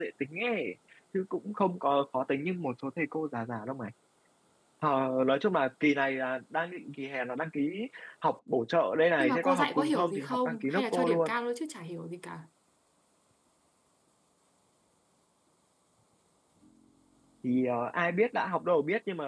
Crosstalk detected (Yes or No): Yes